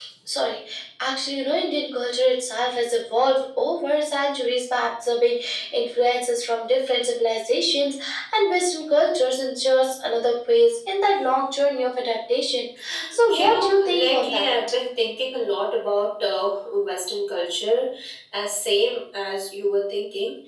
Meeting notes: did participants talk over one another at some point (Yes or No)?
Yes